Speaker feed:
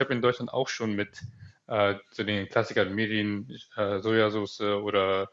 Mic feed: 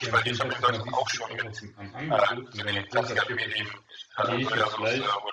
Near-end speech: present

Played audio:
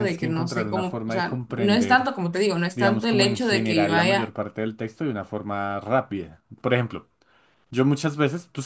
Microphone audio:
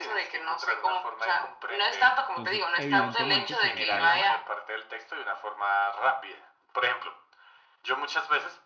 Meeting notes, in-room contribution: present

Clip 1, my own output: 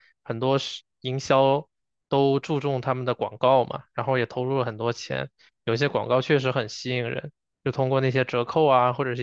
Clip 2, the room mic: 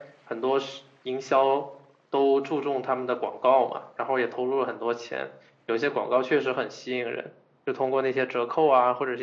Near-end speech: none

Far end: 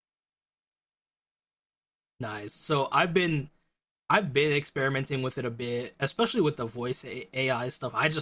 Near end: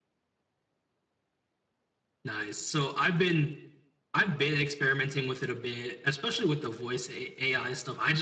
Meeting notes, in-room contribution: none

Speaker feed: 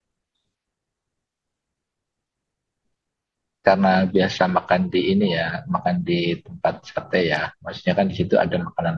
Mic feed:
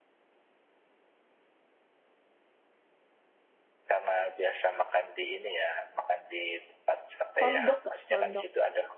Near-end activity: present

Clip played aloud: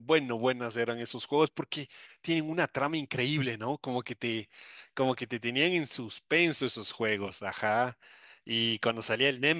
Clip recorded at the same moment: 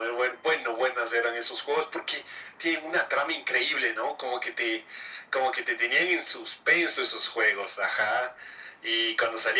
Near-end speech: none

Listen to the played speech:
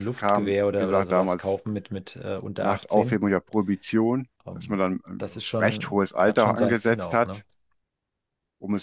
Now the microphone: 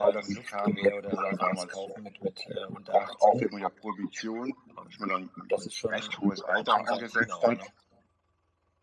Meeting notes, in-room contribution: none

